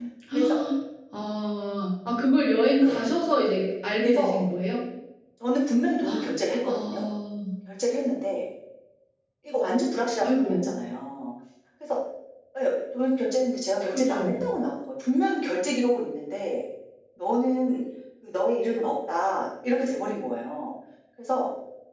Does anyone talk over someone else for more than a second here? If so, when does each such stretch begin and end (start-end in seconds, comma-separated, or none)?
none